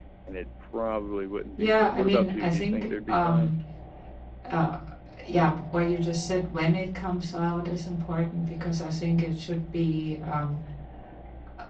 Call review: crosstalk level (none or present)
present